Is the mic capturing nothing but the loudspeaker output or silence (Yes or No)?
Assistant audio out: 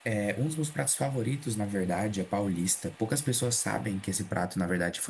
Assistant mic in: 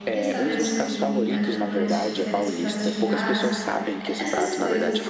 No